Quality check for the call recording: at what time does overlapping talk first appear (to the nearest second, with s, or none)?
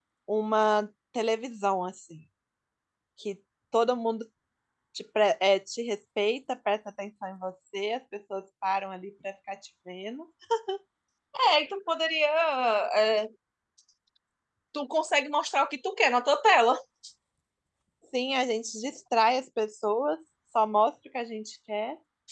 none